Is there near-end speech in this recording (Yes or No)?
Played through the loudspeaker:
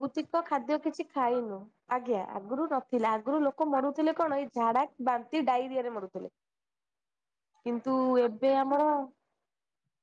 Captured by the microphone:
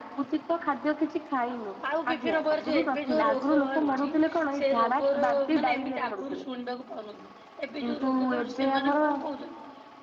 Yes